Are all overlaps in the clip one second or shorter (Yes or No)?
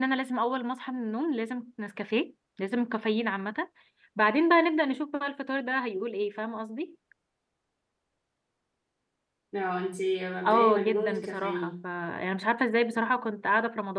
No